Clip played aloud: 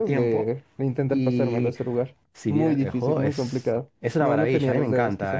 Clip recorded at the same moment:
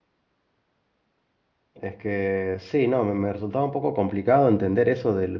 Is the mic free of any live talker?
No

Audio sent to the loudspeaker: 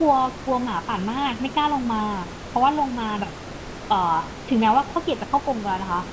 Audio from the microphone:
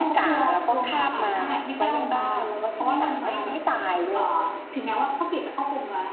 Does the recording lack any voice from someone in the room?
No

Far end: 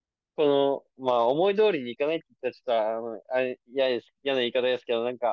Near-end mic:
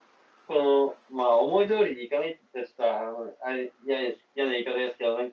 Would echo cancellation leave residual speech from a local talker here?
No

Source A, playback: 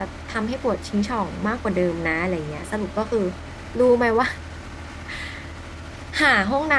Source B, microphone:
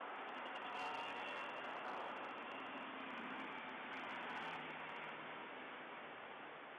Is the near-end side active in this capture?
No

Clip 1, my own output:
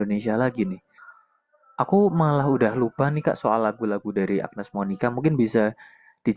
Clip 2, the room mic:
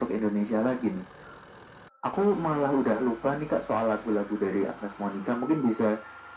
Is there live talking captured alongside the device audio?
No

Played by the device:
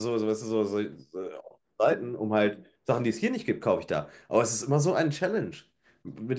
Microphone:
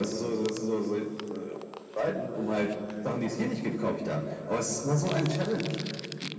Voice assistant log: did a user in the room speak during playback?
No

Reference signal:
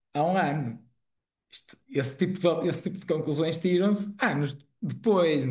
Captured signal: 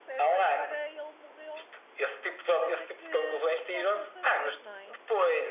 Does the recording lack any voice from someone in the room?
No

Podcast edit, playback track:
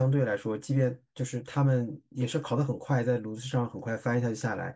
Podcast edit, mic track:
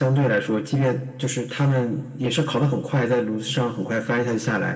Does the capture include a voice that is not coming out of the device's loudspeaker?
No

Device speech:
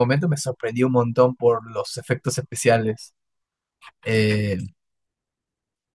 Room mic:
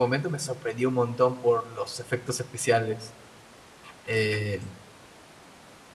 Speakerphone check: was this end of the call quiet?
Yes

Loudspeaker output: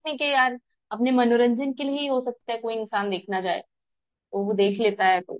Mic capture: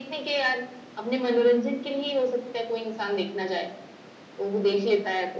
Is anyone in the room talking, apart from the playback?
No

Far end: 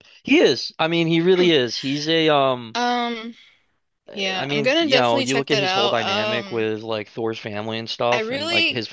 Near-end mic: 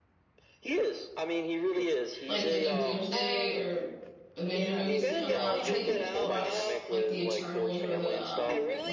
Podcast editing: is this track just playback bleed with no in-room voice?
No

